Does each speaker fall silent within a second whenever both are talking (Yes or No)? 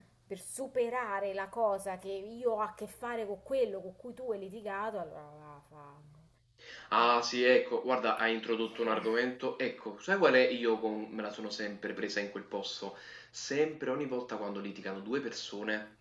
Yes